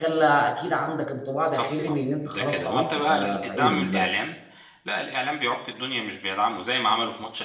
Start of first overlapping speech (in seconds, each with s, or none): 1.5 s